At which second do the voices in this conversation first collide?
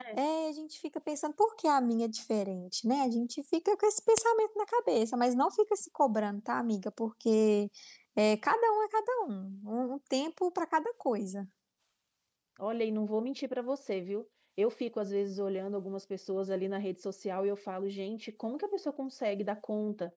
none

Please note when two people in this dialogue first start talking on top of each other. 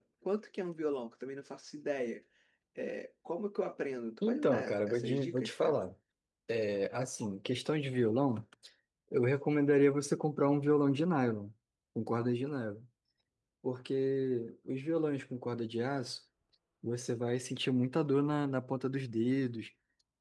4 s

